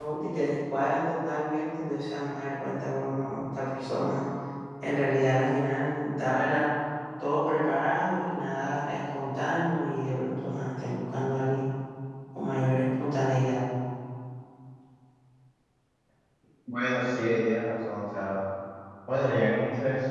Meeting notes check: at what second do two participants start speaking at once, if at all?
none

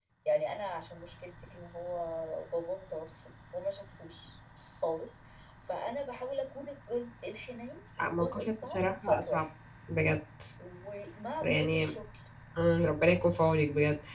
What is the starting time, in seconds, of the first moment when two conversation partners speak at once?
8.0 s

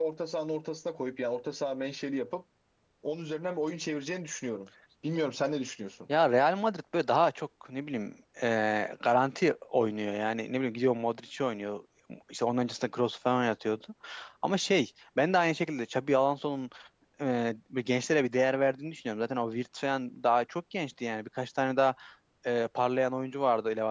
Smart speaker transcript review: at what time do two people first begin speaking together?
none

